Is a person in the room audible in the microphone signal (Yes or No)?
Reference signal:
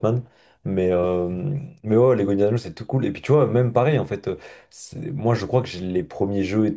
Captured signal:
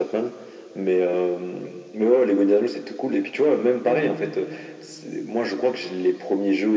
Yes